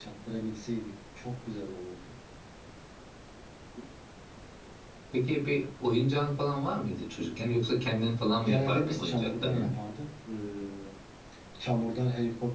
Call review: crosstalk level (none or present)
present